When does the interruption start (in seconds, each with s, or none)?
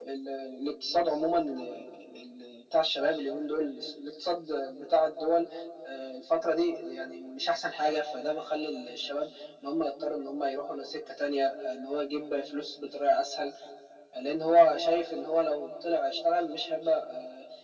none